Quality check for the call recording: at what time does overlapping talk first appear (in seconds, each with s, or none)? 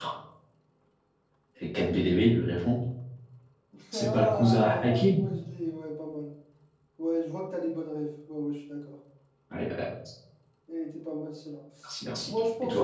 3.9 s